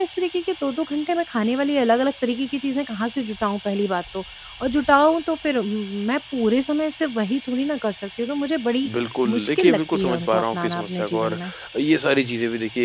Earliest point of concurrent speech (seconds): 9.3 s

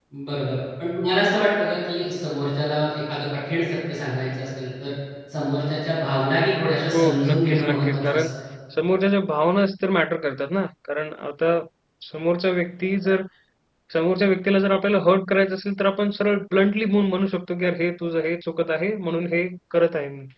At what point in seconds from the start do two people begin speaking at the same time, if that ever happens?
6.9 s

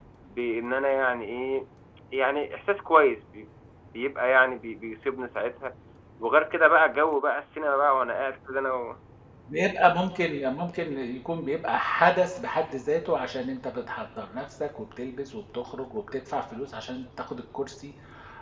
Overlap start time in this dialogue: none

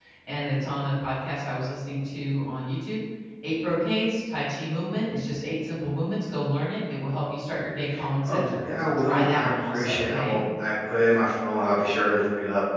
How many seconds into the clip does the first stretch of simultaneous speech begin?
8.3 s

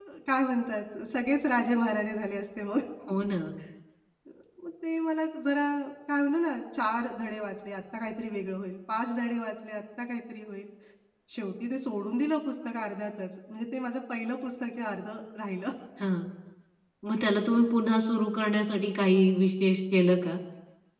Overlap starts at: none

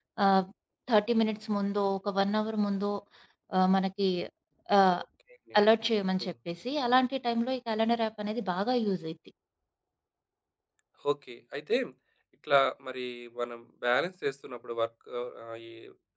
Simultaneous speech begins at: none

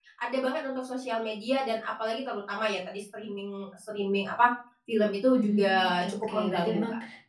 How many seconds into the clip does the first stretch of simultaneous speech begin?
5.3 s

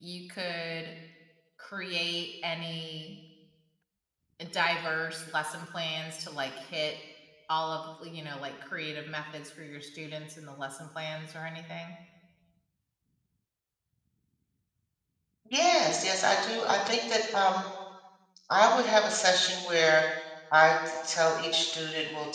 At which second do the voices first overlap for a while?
none

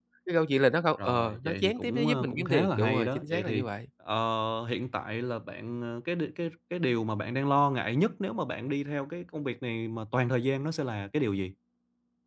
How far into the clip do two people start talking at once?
1.0 s

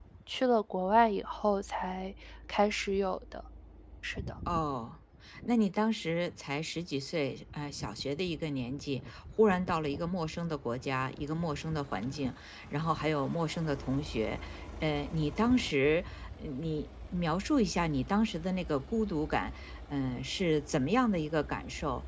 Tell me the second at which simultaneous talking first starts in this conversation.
none

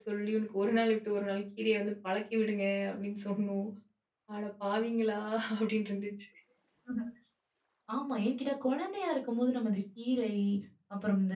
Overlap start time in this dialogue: none

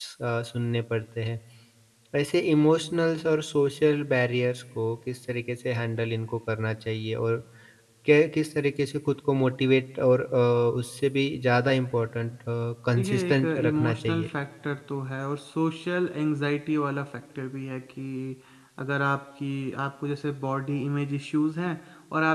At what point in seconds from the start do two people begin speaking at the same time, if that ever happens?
13.0 s

